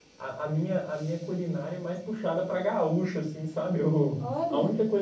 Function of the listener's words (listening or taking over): listening